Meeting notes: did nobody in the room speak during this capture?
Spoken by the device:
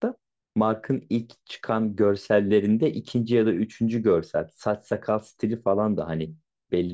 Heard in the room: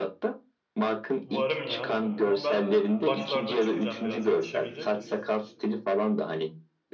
No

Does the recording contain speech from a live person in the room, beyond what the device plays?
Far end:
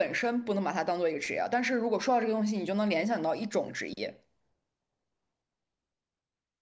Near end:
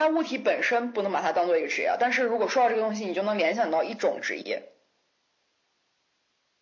No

